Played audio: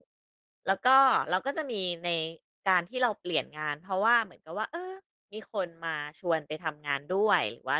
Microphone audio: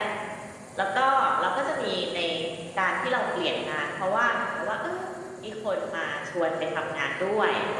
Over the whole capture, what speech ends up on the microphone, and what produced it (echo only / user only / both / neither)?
echo only